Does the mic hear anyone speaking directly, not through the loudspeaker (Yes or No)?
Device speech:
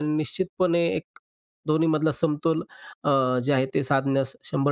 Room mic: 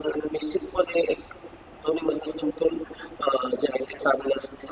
No